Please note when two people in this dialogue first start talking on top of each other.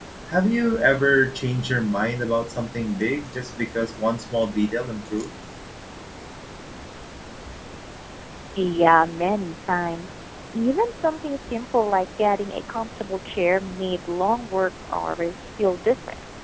none

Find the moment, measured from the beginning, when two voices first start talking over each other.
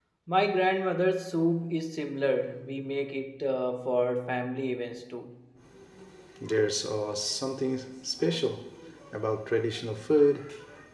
none

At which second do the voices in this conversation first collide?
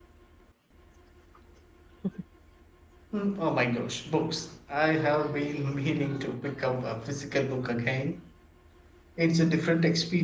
none

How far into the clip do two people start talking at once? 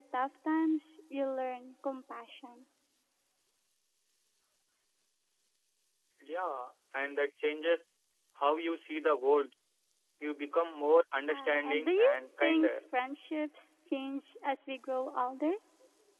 11.3 s

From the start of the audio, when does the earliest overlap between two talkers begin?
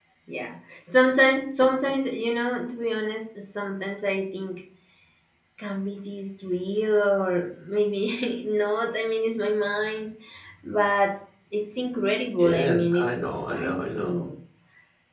12.4 s

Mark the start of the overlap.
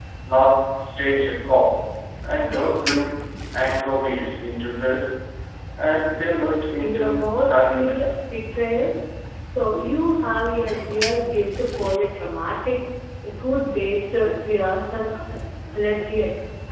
6.8 s

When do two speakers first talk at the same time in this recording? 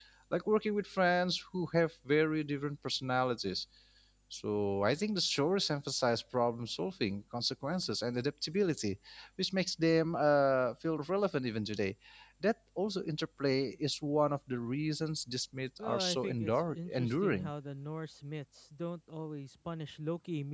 15.8 s

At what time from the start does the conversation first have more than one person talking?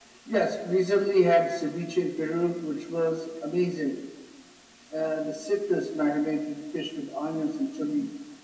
none

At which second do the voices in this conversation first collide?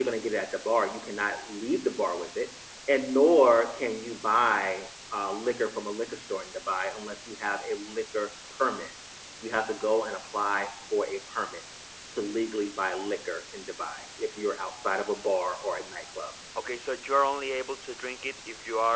none

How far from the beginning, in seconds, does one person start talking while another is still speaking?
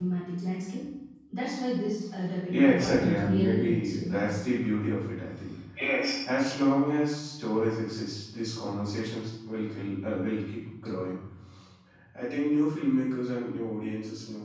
2.5 s

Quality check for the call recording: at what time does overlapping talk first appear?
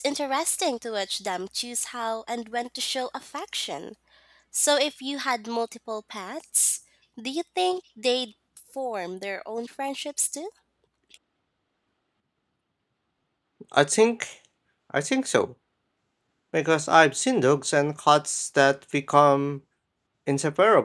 none

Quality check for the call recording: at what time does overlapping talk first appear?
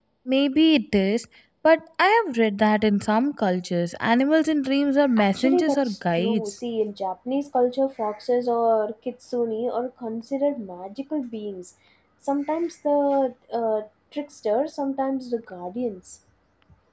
5.2 s

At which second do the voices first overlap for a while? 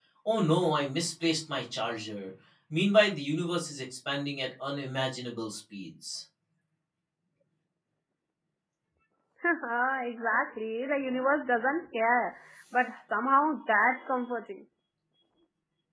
none

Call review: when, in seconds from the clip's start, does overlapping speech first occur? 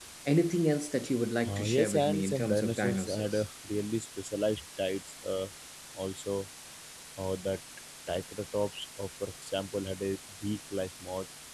1.4 s

